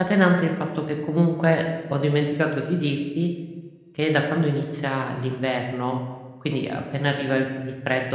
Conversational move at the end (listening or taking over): listening